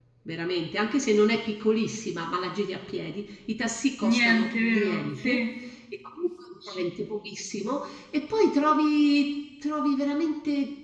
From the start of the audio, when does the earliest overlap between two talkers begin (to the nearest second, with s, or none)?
4 s